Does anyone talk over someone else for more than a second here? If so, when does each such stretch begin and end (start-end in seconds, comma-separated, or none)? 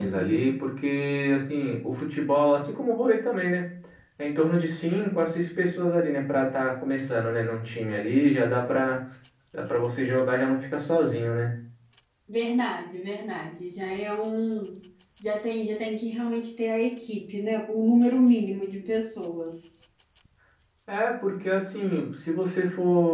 none